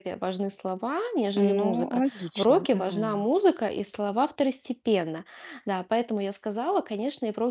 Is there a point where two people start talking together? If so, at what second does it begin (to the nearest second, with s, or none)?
1 s